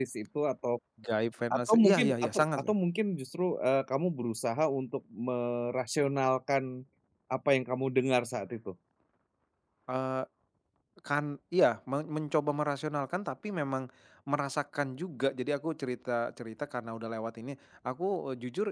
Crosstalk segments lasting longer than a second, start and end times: 1.5-2.7

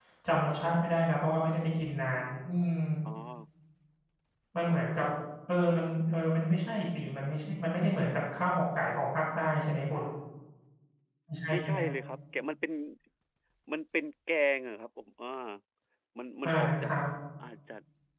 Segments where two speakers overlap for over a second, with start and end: none

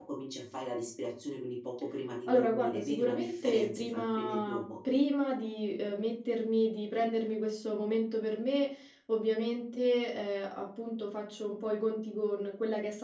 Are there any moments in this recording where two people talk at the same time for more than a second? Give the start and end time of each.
2.3-4.6

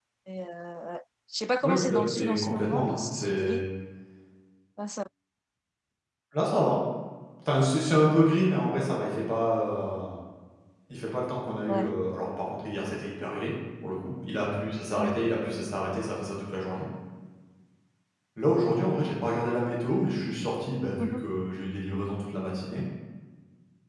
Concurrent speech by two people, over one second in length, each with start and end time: 1.6-3.6

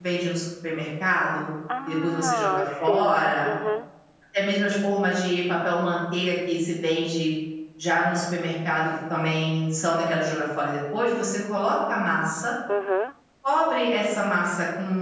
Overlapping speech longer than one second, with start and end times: 1.9-3.5

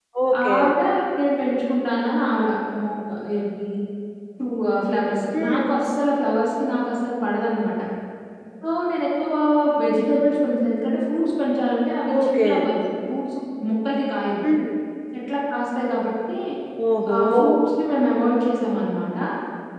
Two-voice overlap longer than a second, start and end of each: none

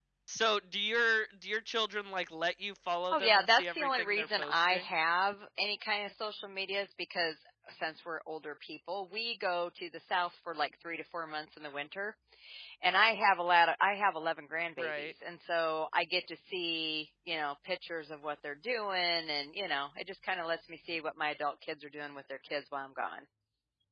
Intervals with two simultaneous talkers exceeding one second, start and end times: 3.1-4.8

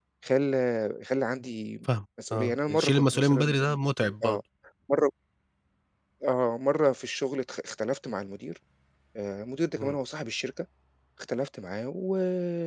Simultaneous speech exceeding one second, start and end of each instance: 2.3-4.4

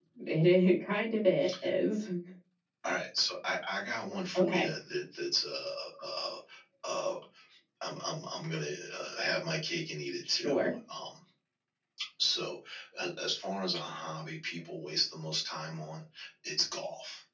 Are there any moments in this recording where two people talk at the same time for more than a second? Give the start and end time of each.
none

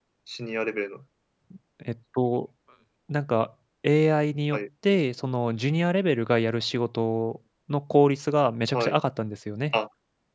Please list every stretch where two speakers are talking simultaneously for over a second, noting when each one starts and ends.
none

